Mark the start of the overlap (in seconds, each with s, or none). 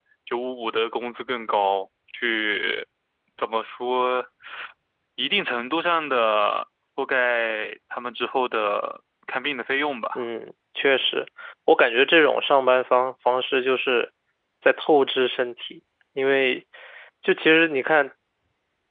none